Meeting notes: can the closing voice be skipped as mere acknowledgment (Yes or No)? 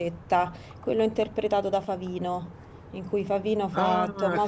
No